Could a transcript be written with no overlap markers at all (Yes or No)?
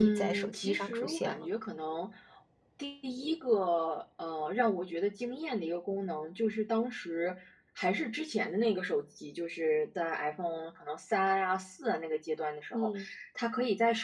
No